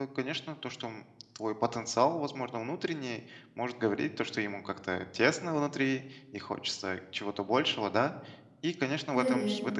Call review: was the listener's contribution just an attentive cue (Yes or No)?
Yes